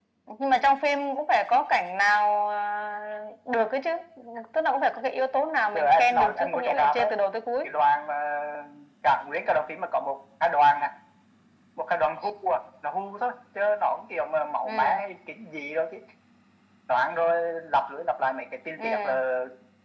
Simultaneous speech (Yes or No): Yes